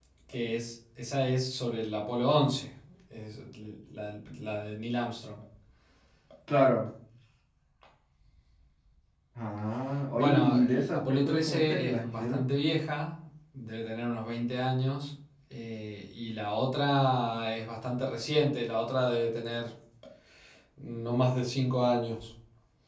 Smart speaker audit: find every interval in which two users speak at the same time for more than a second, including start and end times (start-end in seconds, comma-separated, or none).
10.2-12.4